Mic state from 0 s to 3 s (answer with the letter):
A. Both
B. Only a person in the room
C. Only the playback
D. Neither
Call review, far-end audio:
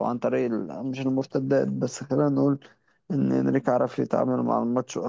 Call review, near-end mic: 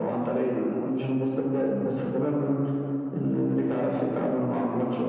C